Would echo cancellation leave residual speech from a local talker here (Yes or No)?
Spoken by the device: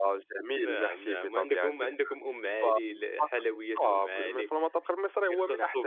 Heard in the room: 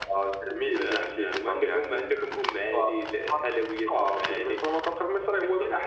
No